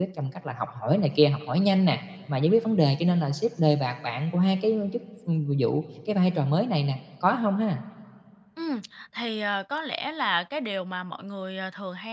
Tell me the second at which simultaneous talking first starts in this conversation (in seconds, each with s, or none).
none